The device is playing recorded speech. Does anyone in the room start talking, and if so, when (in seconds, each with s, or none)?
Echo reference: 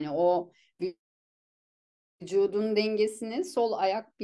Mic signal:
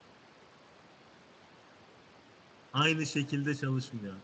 2.7 s